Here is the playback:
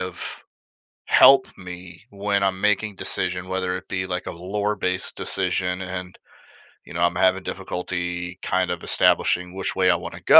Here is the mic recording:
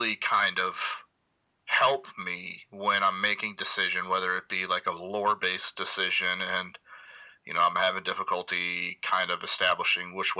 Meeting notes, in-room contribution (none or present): none